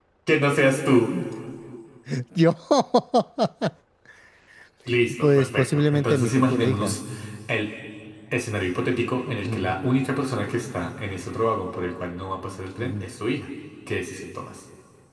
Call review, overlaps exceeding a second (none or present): present